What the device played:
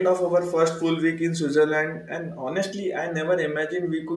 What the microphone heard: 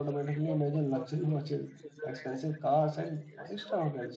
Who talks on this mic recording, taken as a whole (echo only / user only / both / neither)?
both